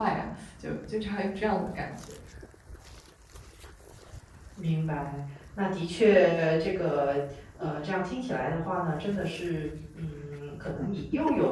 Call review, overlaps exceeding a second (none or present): none